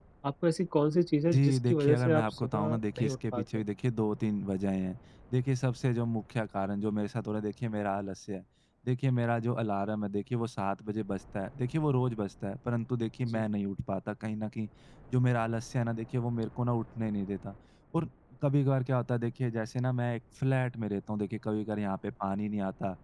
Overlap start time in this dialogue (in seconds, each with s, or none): 1.3 s